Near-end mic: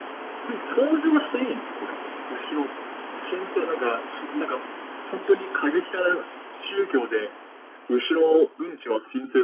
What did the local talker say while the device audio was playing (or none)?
none